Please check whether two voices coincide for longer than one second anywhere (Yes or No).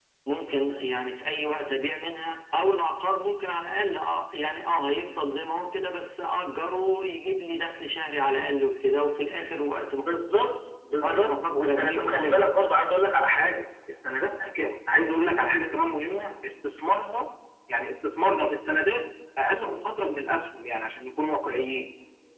Yes